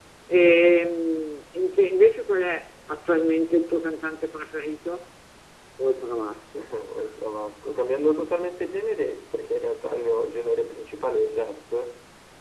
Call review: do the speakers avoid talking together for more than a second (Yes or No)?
Yes